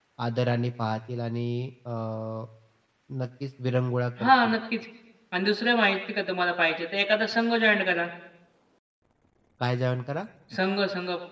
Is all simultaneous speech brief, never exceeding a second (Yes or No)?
Yes